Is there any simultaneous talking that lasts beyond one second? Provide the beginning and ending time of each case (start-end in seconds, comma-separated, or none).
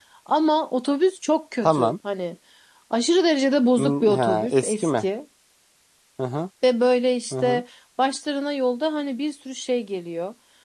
3.8-5.0